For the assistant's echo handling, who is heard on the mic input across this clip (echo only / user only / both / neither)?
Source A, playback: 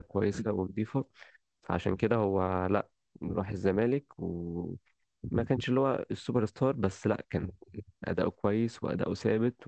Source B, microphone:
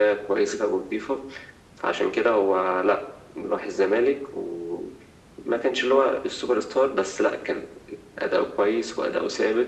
echo only